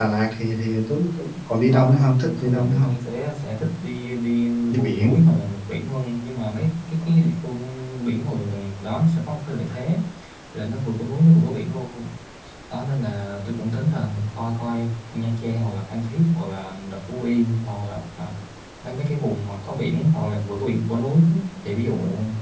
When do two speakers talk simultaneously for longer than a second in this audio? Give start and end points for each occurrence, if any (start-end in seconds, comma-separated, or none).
1.7-2.9